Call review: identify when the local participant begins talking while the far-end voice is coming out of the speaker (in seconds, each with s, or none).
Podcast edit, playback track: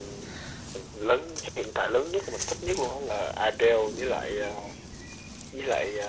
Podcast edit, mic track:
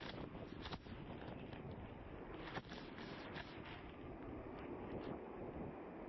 none